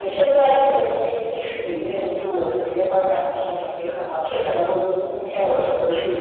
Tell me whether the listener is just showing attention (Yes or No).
No